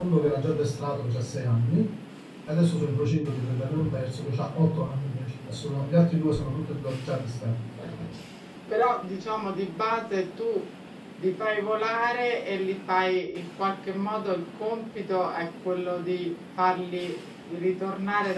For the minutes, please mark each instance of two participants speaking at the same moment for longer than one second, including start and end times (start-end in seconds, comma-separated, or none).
none